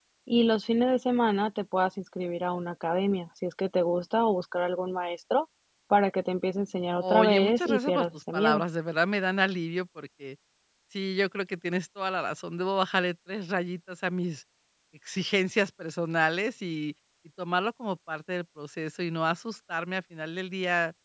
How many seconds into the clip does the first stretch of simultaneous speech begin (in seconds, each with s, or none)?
7.0 s